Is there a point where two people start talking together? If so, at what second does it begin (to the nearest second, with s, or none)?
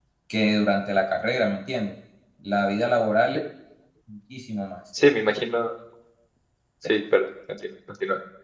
none